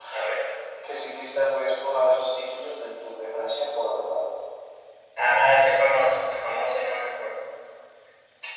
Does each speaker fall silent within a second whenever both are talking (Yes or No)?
Yes